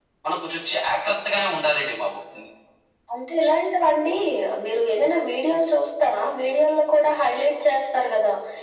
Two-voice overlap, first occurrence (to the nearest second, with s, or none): none